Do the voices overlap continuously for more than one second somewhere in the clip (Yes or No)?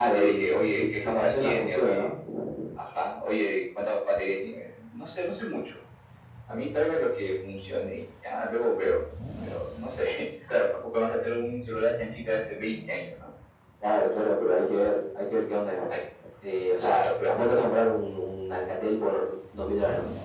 Yes